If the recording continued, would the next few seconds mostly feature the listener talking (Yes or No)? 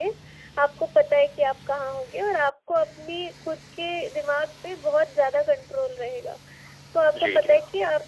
No